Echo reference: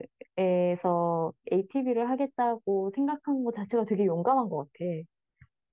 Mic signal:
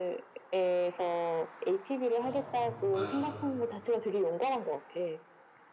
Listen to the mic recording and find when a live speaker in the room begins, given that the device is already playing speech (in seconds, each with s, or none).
2.2 s